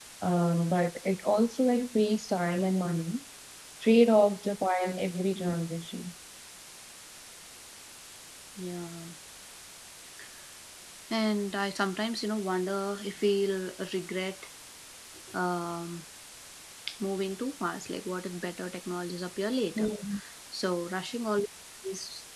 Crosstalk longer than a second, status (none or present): none